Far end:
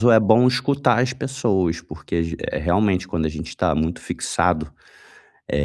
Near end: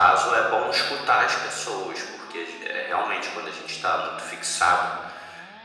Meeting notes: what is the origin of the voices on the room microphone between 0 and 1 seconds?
echo only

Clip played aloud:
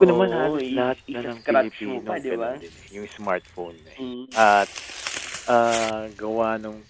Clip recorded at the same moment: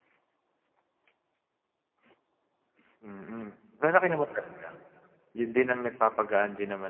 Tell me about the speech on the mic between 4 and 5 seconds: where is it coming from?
user only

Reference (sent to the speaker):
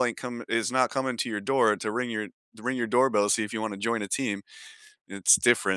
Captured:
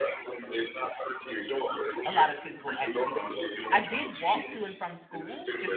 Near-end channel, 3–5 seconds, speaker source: both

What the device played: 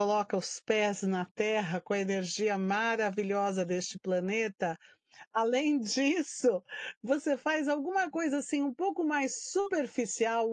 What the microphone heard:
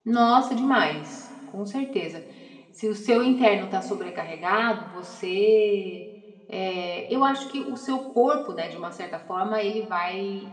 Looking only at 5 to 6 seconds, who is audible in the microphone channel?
user only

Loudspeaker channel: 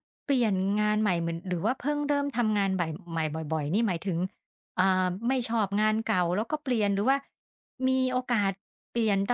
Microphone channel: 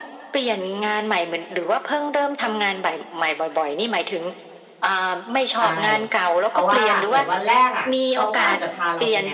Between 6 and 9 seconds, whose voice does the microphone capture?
both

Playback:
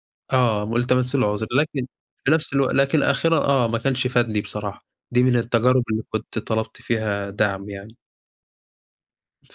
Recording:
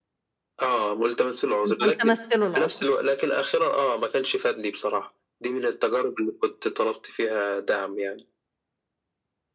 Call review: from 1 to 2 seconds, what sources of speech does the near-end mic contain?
both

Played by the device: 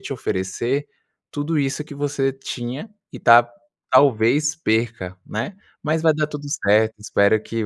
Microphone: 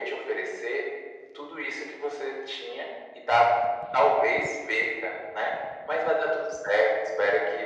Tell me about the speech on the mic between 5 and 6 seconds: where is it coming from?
echo only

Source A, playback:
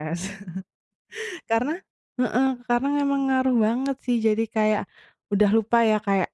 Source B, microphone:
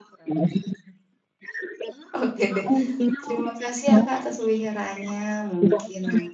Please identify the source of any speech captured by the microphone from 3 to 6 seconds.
both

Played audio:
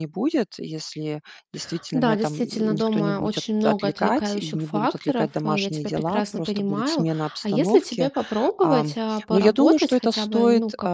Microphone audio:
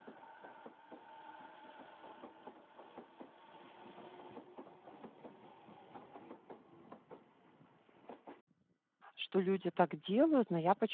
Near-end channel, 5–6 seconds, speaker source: neither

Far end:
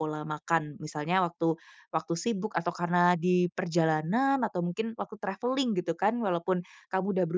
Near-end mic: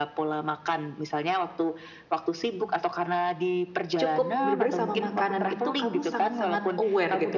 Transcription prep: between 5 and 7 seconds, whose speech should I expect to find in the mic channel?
both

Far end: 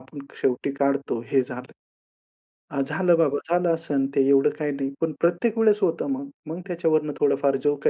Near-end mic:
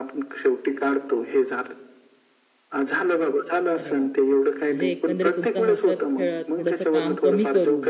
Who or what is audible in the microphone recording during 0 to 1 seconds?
echo only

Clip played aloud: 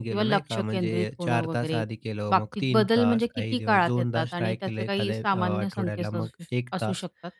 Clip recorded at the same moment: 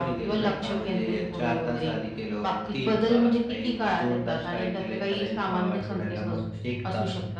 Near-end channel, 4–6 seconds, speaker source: echo only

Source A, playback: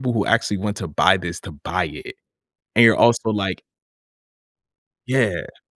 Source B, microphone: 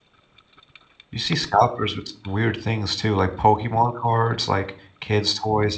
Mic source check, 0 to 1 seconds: neither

